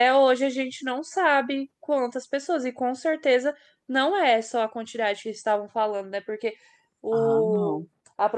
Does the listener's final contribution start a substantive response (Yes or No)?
No